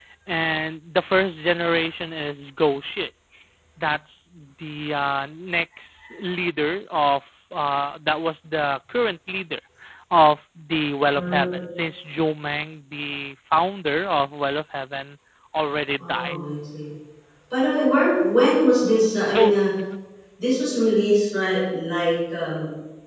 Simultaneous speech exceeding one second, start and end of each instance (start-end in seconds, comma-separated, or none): none